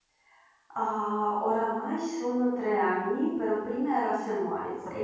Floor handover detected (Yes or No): No